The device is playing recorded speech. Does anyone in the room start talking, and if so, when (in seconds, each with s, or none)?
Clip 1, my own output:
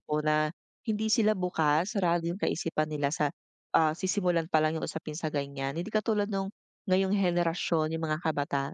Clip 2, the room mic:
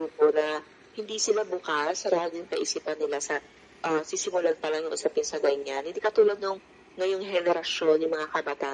none